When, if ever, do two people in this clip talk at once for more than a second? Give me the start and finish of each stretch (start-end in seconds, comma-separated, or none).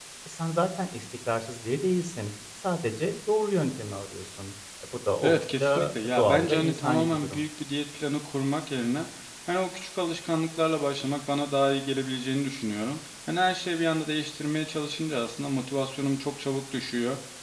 5.2-7.4